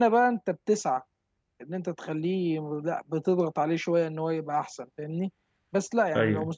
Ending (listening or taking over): listening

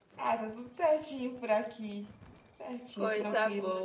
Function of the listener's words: taking over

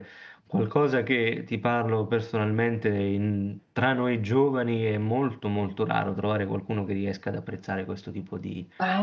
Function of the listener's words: taking over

